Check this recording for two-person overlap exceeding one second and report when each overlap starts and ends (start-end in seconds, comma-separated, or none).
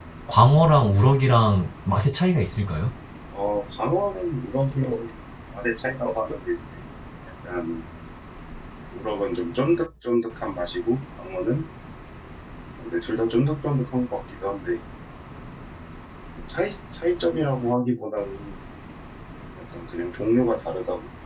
none